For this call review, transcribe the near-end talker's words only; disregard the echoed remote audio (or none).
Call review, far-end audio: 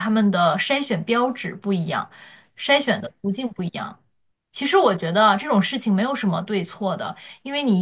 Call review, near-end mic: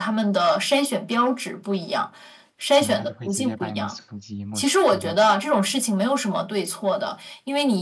可能他就会直接把你的手机没收掉，